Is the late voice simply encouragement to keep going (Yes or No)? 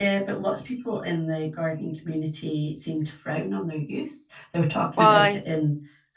Yes